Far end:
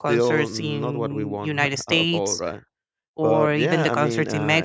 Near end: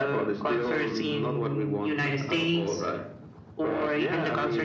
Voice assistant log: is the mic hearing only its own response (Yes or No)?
Yes